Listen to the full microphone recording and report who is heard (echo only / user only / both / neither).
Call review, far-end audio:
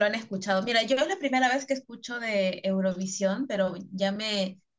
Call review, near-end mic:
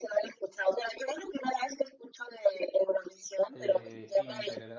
both